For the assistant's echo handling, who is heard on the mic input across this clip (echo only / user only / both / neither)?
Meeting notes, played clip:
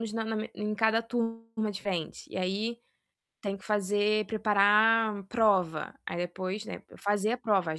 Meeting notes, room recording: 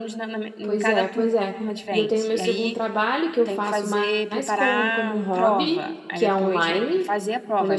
both